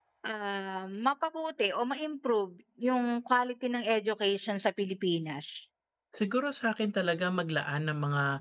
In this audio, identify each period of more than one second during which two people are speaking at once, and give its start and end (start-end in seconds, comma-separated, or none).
none